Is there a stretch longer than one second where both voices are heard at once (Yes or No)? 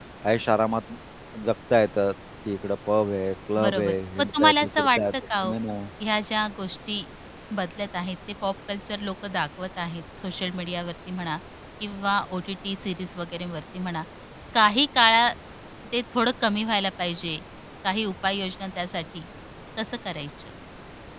Yes